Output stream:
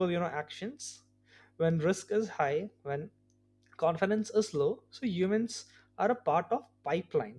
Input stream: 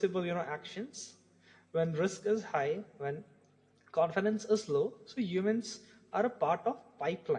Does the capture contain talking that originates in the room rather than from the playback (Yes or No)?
No